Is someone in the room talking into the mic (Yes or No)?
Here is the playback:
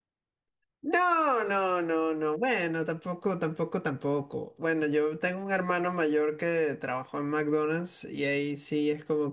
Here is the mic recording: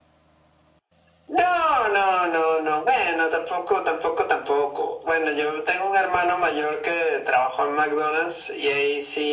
No